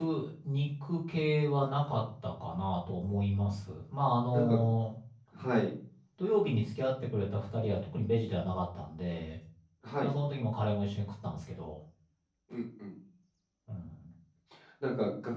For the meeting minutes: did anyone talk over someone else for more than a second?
No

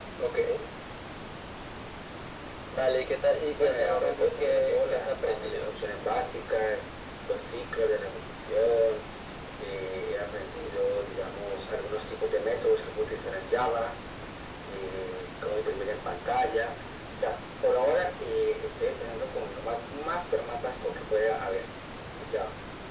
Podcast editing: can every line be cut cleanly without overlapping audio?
No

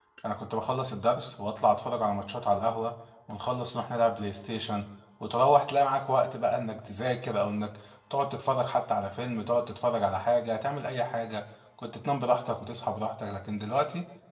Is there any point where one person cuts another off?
No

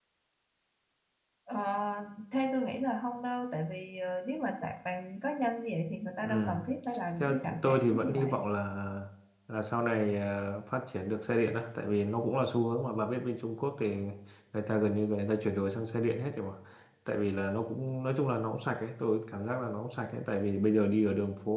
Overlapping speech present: Yes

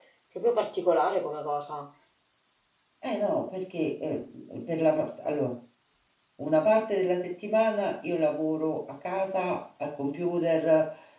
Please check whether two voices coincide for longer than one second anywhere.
No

